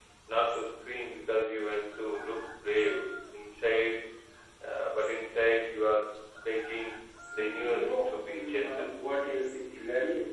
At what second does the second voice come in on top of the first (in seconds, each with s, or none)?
7.4 s